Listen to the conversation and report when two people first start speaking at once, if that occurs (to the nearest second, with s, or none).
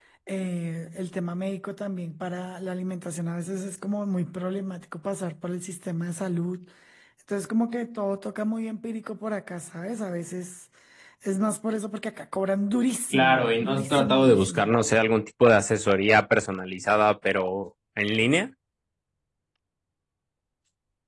13 s